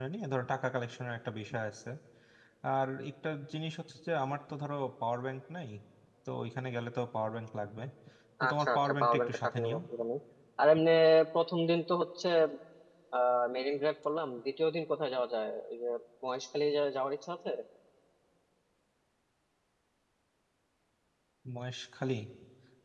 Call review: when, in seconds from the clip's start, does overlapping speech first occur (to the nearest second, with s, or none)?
8 s